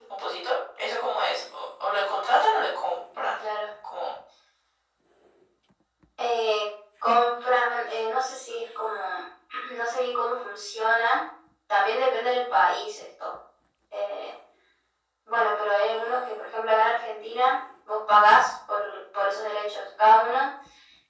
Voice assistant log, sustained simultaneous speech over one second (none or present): none